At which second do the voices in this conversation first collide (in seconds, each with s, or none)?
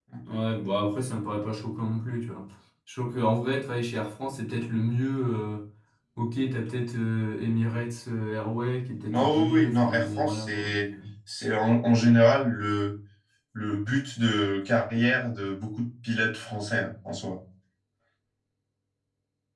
9.1 s